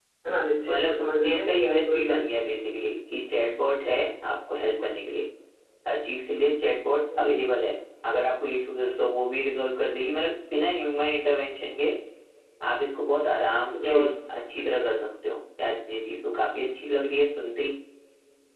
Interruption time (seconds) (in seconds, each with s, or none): 0.7 s